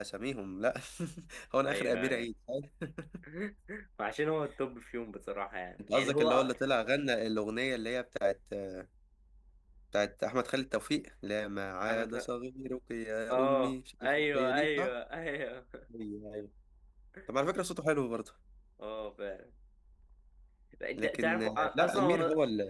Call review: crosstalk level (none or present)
present